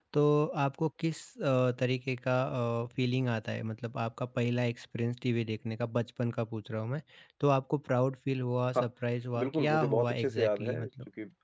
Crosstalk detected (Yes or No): Yes